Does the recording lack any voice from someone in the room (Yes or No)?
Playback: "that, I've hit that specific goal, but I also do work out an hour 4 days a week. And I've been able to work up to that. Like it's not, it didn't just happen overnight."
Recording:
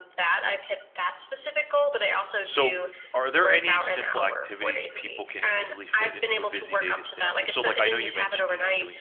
No